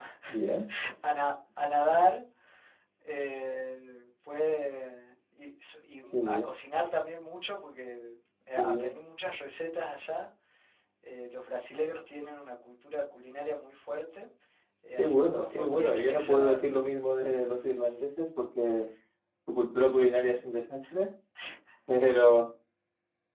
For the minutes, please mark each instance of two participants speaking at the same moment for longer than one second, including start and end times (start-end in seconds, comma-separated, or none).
14.9-16.6